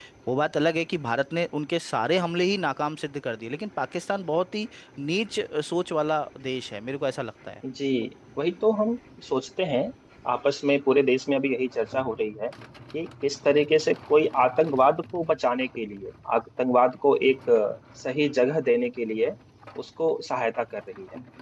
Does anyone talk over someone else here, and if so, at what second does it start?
none

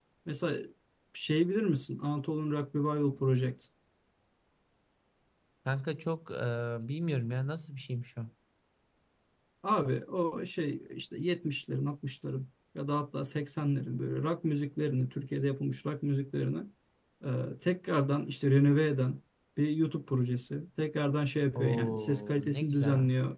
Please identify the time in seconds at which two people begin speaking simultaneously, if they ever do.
21.6 s

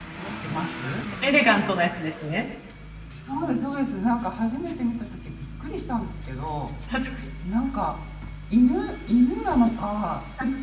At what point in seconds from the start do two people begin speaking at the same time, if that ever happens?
none

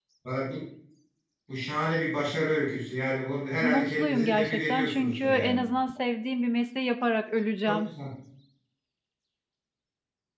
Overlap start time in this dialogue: 3.6 s

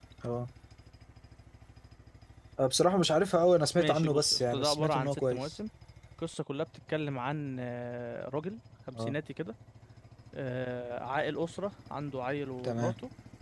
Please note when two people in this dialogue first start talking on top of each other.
3.8 s

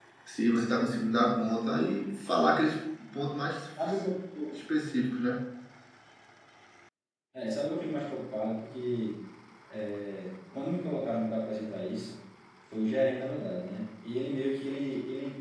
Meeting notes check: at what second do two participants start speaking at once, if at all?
none

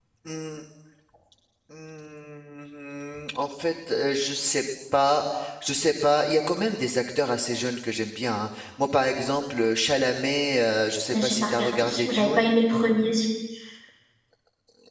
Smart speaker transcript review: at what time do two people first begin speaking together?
11.1 s

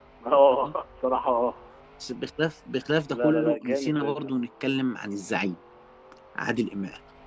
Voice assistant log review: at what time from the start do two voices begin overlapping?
3.1 s

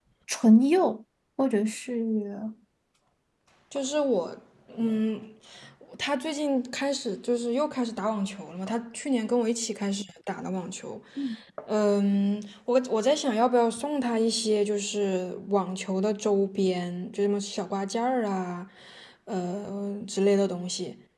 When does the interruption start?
none

